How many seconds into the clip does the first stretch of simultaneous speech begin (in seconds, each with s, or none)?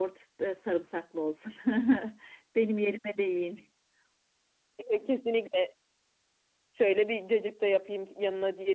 none